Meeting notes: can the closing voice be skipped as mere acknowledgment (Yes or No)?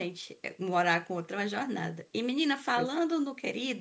Yes